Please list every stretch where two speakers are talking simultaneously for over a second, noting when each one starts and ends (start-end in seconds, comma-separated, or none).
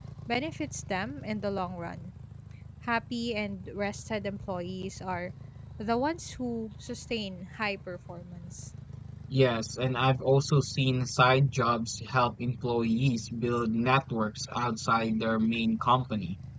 none